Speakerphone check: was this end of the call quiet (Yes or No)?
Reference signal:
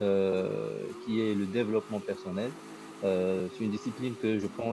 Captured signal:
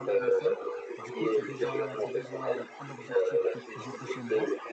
No